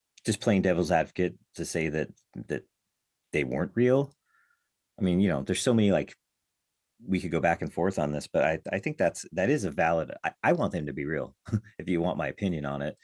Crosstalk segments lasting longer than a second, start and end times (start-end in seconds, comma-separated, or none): none